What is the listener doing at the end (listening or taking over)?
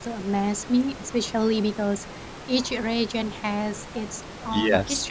listening